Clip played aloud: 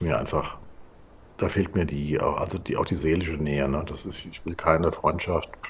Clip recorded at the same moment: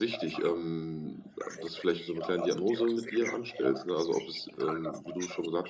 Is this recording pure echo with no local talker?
No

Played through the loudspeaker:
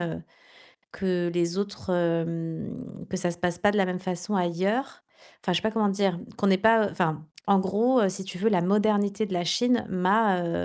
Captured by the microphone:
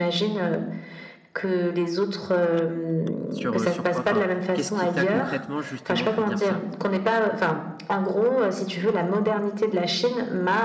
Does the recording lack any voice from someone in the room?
No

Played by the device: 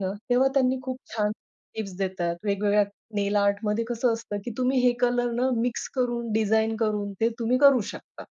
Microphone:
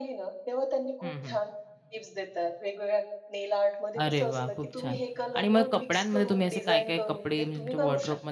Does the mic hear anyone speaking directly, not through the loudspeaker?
Yes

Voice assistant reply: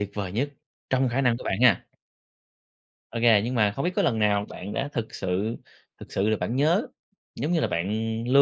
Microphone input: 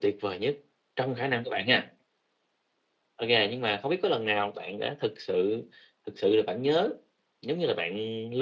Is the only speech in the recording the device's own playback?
Yes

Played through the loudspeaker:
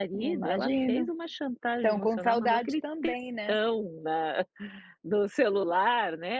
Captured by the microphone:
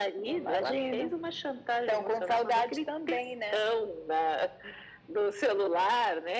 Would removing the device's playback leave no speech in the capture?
Yes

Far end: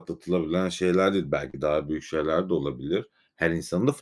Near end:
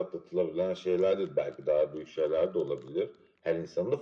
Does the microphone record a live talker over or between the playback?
No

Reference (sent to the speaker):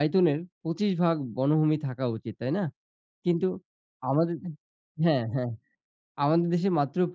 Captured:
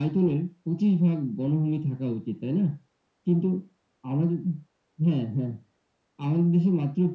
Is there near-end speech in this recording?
No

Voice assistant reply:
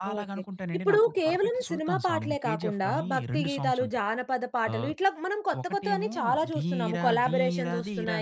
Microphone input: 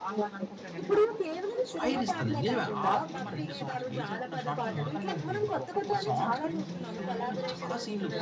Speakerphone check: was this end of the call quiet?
No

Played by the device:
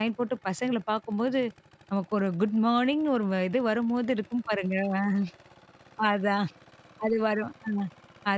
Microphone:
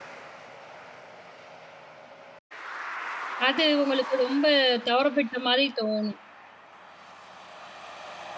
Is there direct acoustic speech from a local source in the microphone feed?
Yes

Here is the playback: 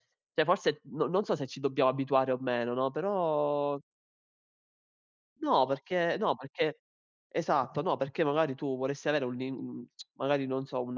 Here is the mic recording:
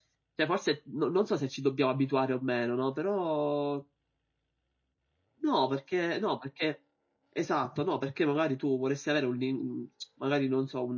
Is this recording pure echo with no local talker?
Yes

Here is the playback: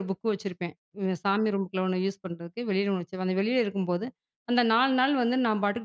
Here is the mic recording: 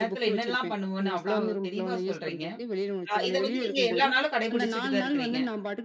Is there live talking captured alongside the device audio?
Yes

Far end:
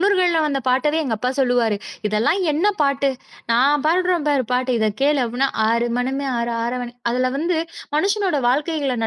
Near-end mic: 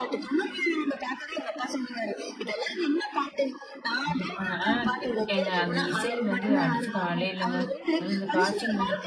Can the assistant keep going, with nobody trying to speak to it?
No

